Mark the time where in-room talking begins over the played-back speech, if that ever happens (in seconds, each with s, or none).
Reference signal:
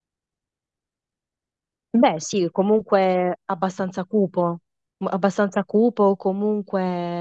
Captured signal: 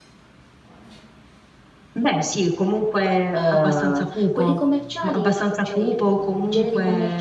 3.3 s